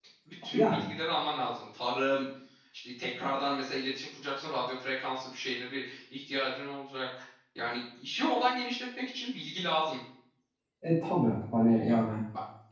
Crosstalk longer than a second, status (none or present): none